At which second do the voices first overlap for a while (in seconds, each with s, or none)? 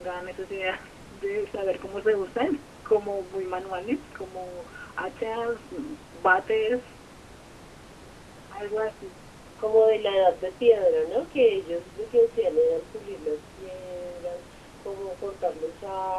none